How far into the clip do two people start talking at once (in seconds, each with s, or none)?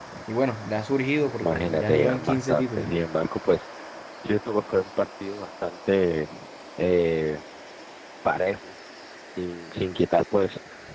1.4 s